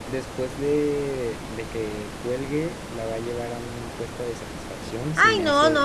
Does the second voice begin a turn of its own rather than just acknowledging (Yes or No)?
Yes